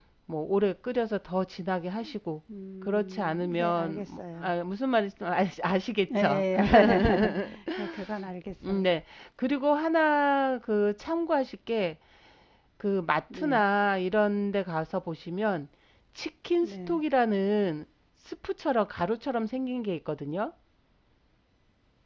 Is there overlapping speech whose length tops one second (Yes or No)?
Yes